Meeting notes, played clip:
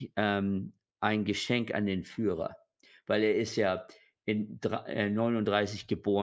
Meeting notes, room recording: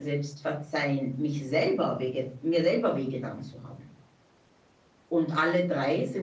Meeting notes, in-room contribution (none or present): present